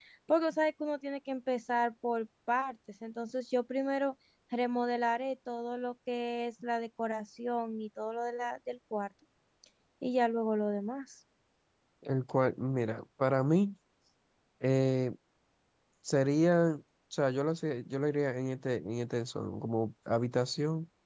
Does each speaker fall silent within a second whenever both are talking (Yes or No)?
Yes